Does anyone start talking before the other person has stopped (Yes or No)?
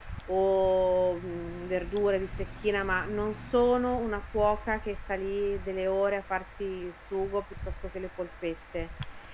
No